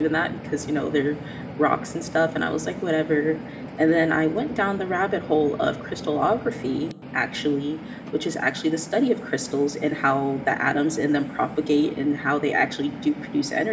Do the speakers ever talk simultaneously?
No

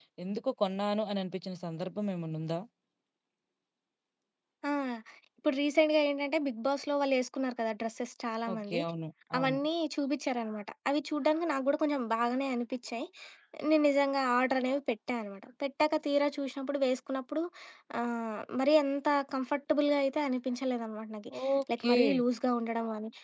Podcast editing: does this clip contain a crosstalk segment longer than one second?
No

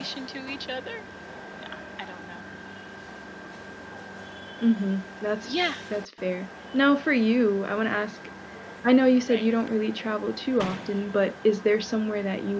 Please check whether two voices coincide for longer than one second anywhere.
No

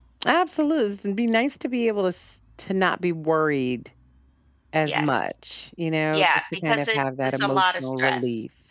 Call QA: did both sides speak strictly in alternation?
No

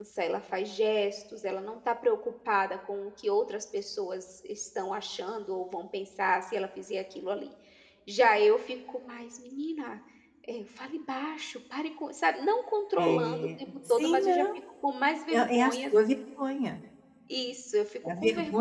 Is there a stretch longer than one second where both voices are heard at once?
Yes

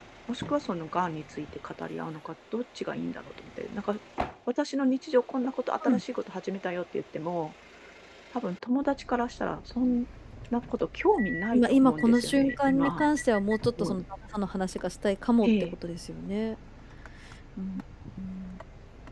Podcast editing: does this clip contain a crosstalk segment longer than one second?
Yes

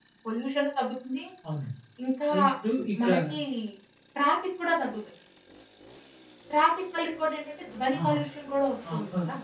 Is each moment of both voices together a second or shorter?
Yes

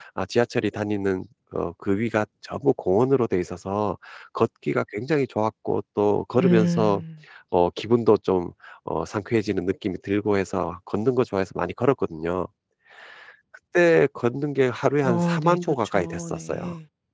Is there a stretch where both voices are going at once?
Yes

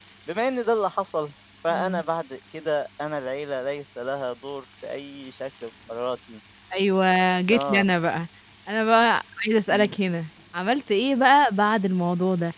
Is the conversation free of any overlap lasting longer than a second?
Yes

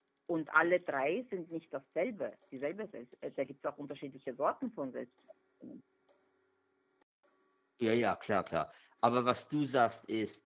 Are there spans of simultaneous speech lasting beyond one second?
No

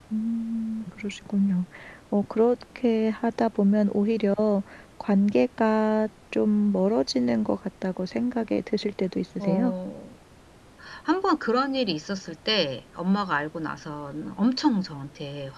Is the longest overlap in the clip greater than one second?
No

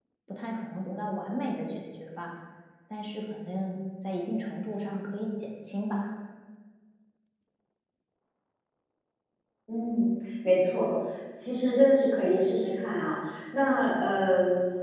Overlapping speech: No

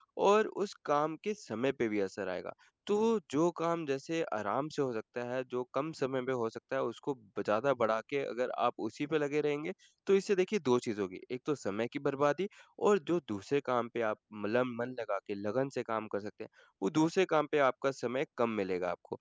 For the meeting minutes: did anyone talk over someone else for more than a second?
No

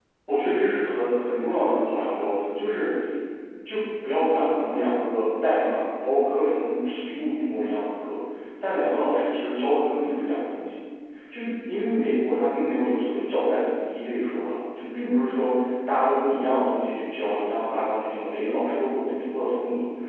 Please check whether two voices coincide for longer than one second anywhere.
No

